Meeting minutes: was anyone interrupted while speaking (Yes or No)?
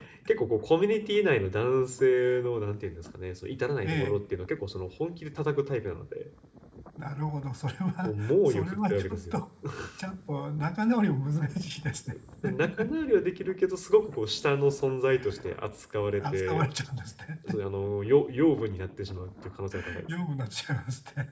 Yes